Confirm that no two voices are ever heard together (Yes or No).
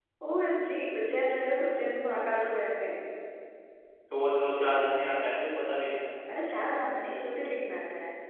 Yes